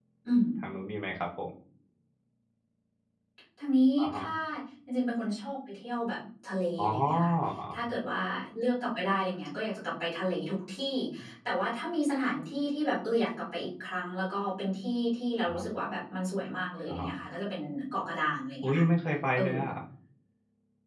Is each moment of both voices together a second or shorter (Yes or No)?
Yes